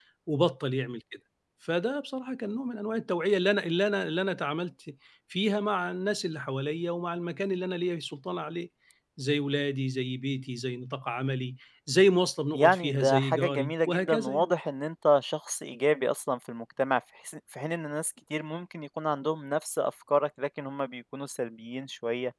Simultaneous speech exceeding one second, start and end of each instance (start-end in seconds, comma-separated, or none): 12.5-14.5